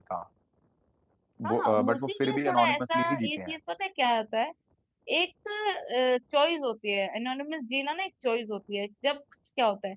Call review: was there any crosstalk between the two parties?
Yes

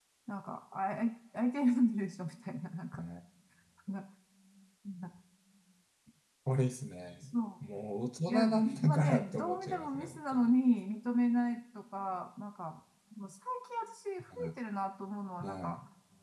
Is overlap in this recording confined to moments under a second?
No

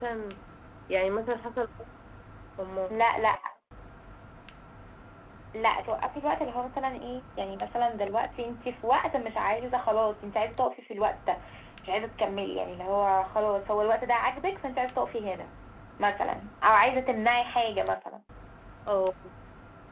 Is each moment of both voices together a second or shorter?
Yes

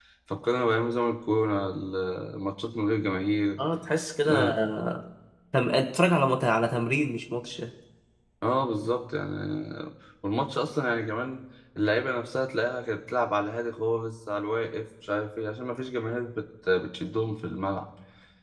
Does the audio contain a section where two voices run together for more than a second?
No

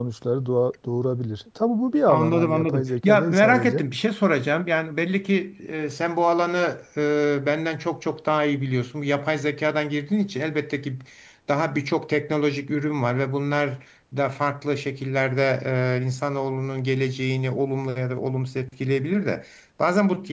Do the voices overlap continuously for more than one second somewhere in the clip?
Yes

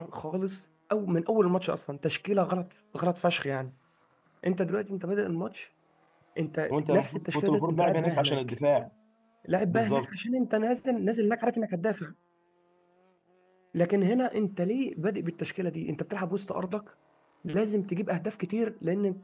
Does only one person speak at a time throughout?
No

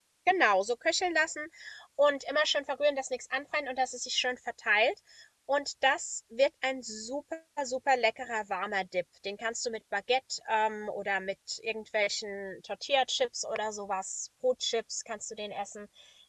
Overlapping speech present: No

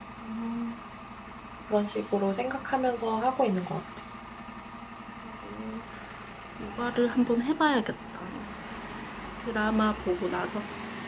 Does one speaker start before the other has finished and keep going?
No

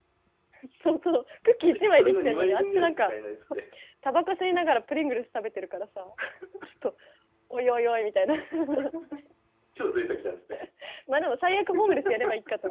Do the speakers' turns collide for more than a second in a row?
Yes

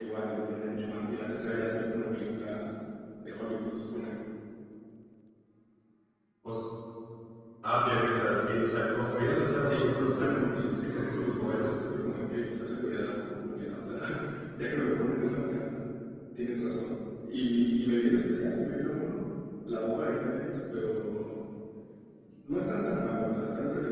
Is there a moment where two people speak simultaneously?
Yes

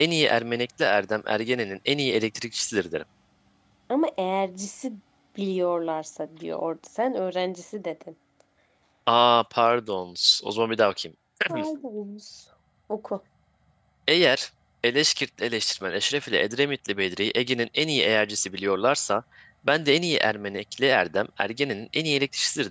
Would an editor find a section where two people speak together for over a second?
No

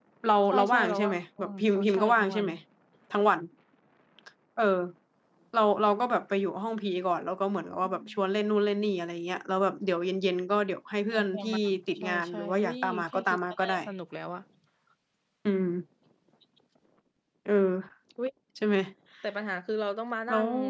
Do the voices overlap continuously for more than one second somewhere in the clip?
Yes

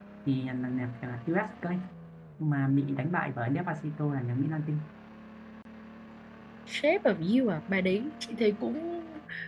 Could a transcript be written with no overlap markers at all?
Yes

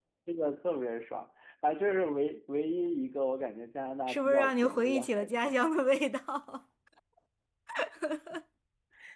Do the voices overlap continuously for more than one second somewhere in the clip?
Yes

